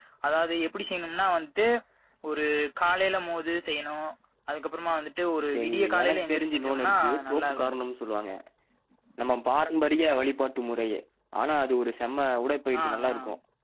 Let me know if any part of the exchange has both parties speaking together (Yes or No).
Yes